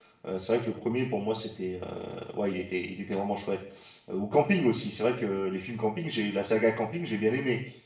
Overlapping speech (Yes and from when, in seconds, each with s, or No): No